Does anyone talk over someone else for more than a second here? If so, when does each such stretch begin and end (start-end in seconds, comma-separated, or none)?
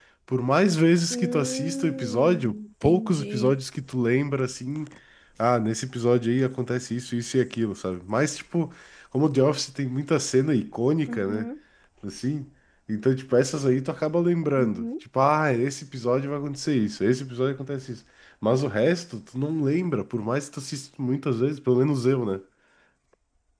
1.1-3.6